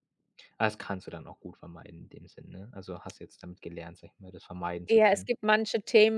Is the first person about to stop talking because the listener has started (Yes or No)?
Yes